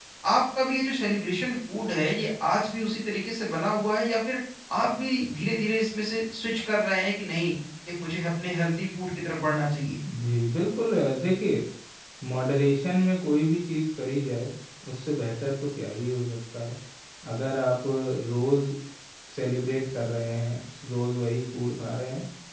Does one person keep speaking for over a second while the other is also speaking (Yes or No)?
No